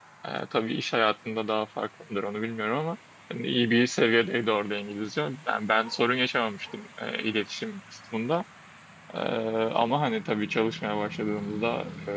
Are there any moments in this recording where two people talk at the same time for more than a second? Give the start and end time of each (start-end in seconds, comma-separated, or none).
none